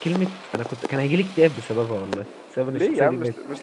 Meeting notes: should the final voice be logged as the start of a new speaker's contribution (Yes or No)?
Yes